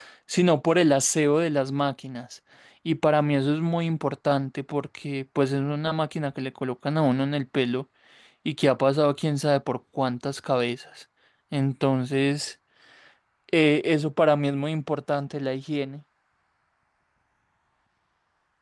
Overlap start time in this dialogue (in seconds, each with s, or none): none